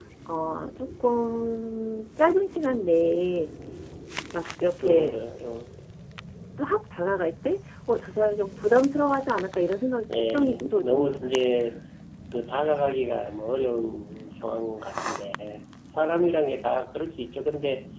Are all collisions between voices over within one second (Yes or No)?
No